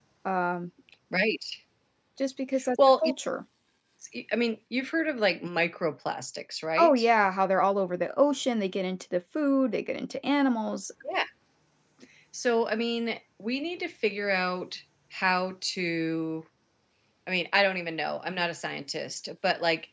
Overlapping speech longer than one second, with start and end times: none

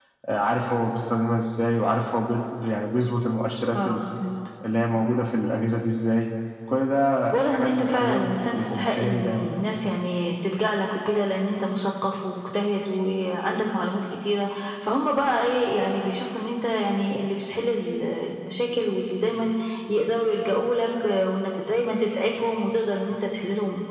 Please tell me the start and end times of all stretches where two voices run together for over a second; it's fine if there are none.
7.3-9.6

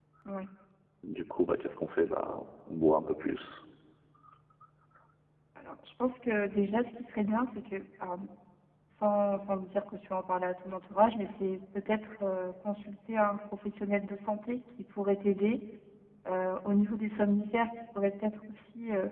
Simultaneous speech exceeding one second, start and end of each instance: none

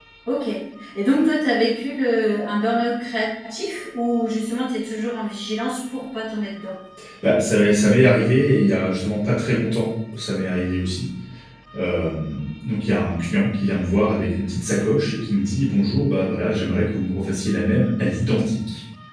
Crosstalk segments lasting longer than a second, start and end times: none

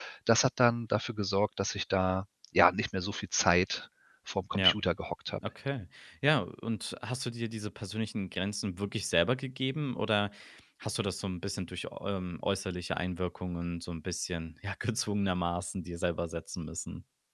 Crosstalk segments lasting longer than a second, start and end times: none

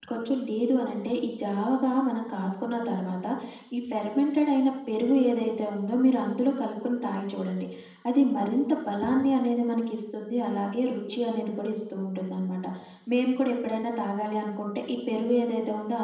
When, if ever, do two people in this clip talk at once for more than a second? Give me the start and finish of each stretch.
none

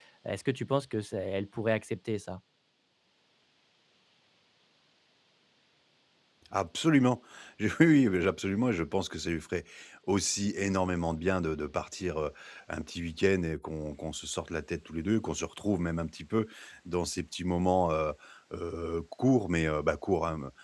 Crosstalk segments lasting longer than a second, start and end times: none

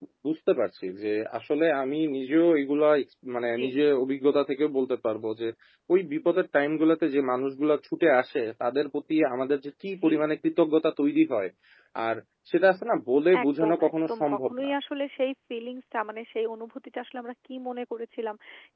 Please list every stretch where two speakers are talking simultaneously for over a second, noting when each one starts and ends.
13.4-14.7

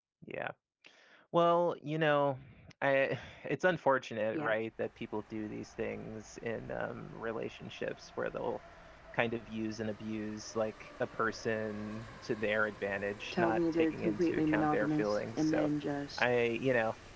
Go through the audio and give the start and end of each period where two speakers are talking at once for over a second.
13.3-15.7

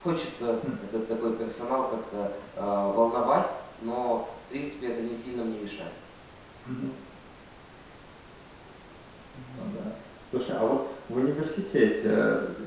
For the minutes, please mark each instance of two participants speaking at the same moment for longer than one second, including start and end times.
none

